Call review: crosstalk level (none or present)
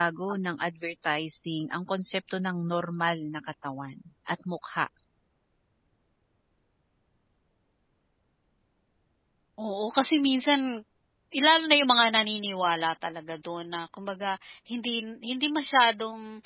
none